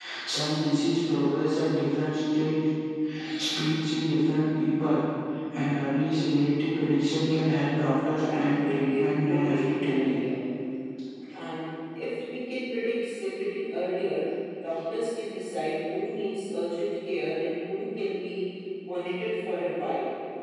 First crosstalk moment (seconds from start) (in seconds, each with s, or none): 8.2 s